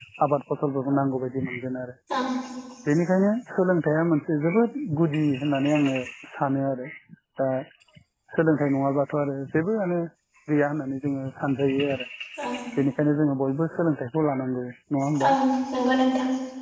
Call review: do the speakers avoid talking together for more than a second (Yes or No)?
Yes